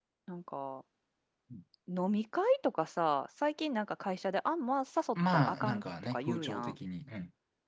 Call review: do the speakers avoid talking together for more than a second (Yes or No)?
No